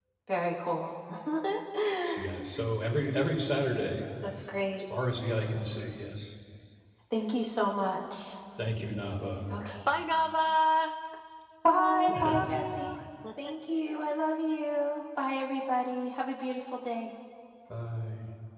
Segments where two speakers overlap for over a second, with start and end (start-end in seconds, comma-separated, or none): 11.7-13.0